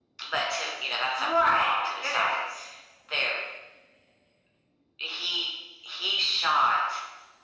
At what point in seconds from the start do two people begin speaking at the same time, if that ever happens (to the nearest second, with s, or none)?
1 s